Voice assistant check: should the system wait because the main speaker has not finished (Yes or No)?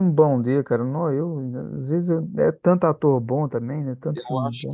No